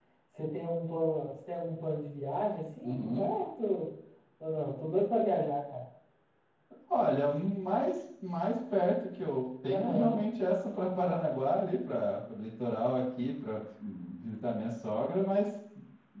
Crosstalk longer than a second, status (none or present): none